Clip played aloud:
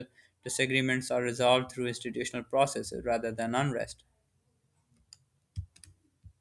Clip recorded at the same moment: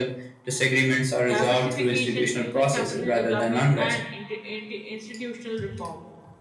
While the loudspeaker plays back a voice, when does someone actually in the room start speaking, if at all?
1.3 s

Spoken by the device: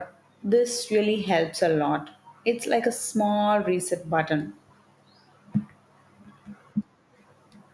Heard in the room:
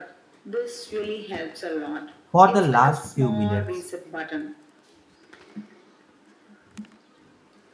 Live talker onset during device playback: 2.3 s

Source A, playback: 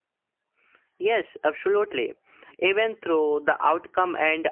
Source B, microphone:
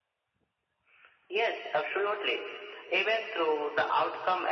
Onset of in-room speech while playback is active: none

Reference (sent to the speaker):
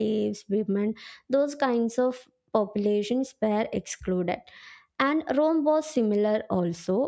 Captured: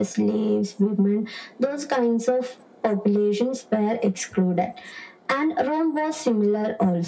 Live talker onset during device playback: none

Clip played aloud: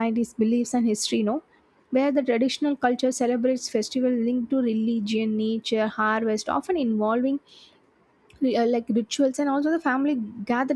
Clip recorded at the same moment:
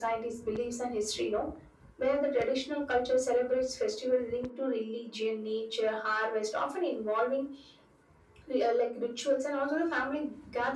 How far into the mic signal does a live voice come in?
none

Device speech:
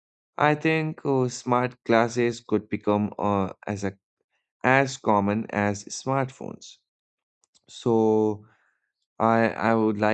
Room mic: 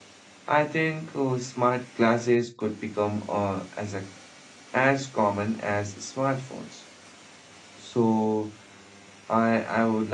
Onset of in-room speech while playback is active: none

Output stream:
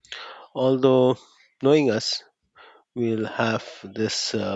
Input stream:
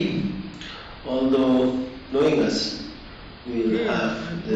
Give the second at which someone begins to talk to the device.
3.6 s

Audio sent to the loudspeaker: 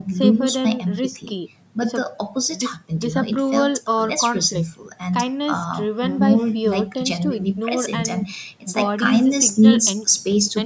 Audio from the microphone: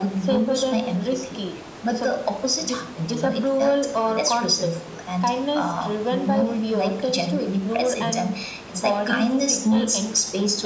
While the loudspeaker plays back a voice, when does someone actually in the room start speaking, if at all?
none

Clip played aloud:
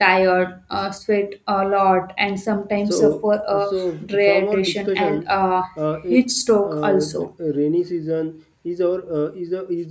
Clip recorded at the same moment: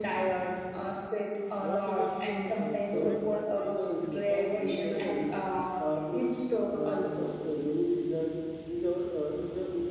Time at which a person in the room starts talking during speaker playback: 1.6 s

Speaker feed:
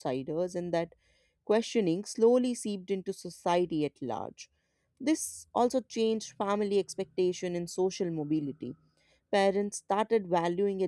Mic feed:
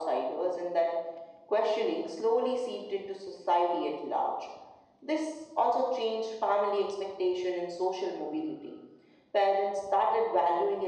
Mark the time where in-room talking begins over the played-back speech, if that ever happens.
none

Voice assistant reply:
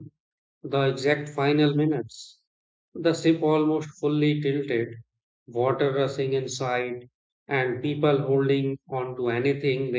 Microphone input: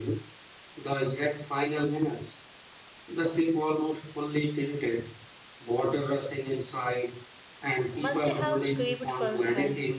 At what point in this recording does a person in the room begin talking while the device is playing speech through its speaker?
8.0 s

